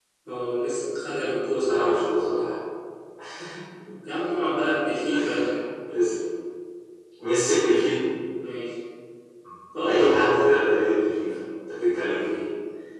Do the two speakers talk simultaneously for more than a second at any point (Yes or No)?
No